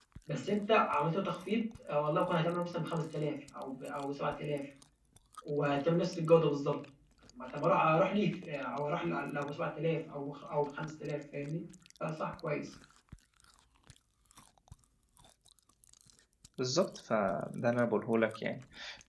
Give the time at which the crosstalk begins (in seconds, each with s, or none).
none